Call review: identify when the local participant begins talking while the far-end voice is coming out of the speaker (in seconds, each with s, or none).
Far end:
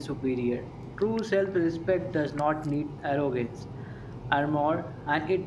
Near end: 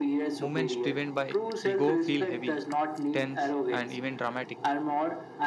0.4 s